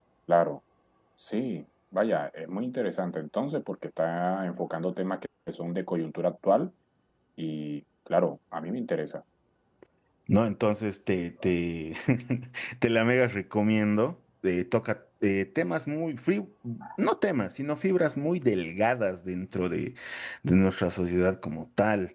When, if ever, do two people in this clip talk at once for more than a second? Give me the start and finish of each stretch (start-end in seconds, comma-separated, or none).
none